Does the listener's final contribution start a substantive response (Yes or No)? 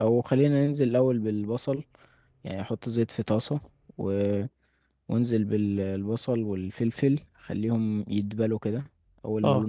No